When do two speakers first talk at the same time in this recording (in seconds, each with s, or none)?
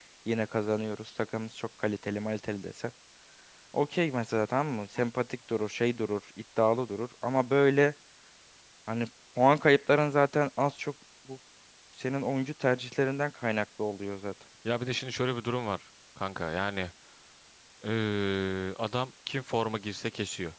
none